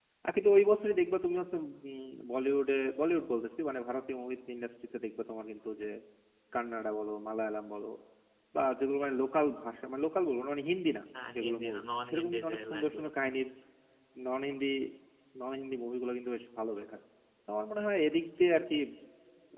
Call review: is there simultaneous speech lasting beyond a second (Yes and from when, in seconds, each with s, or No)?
Yes, from 11.1 s